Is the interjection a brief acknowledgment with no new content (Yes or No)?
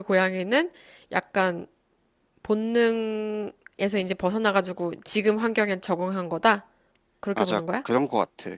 No